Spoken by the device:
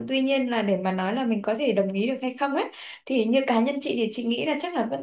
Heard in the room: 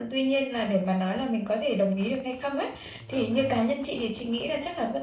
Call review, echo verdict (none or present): present